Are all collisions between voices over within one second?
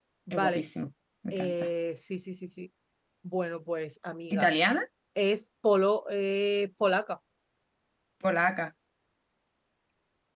Yes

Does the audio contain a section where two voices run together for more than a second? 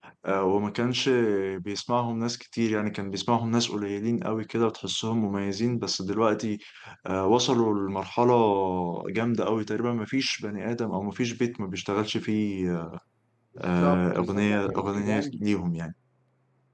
Yes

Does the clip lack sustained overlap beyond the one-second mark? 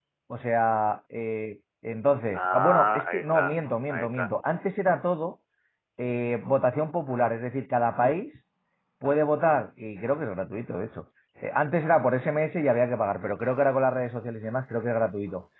No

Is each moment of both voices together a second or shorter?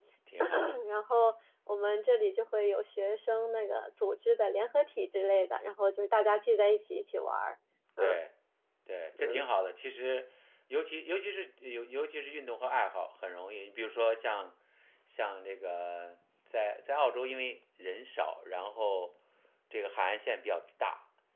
Yes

